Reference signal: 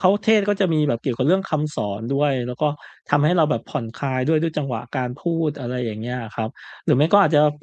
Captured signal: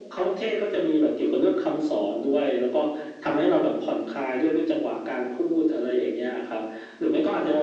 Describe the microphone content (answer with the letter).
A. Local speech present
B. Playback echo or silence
B